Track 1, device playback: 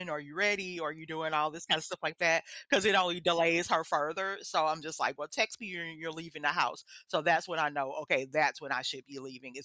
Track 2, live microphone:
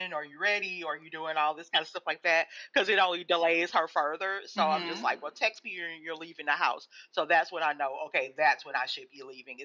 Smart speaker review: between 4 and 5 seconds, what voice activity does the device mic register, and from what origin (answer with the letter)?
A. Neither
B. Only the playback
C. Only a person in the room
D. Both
D